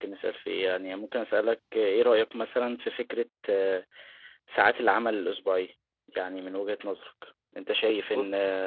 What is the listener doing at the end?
listening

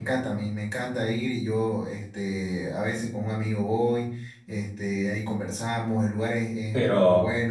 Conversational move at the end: taking over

